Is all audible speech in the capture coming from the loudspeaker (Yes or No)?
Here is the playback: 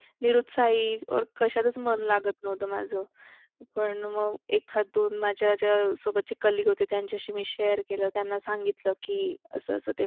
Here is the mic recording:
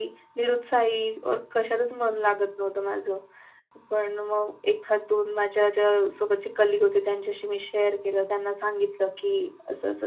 Yes